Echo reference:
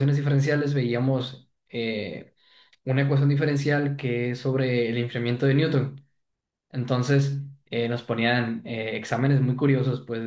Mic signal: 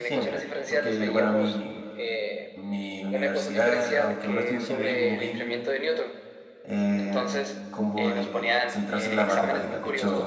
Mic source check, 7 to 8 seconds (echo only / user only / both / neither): both